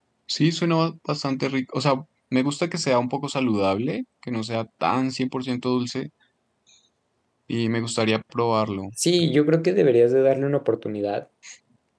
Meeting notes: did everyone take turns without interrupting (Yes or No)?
Yes